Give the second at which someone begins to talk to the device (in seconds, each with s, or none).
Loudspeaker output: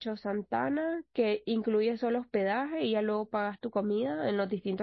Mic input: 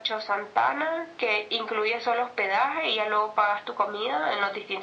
none